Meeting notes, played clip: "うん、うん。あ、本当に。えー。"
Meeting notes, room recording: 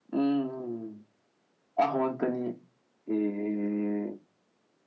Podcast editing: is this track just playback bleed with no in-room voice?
Yes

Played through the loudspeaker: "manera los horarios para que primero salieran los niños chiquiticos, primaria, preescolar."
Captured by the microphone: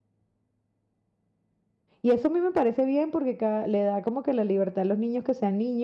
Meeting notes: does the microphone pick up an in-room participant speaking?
Yes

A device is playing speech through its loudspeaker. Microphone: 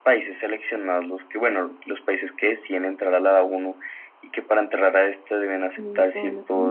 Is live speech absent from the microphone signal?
No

